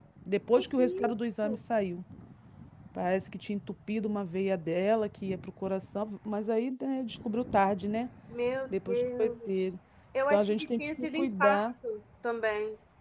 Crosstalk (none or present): present